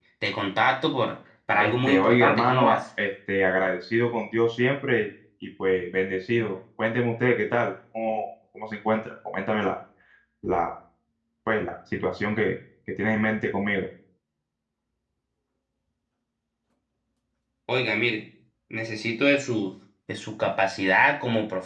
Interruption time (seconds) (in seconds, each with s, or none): 1.6 s